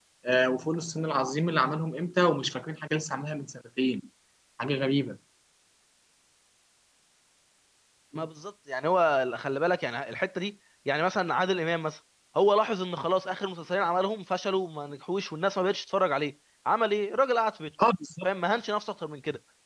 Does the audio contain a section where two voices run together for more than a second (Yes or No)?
No